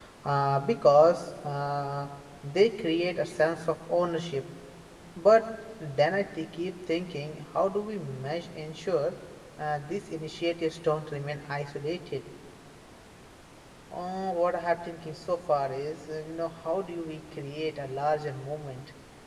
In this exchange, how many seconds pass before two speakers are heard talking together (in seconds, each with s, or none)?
none